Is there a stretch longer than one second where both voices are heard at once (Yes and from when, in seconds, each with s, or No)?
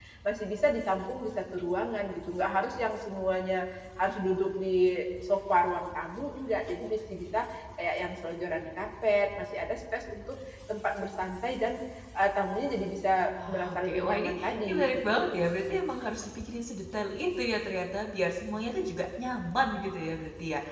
Yes, from 13.5 s